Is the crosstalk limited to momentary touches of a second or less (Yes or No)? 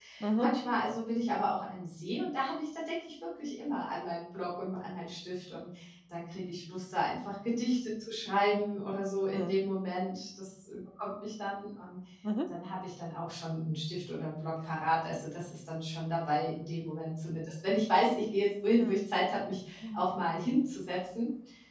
Yes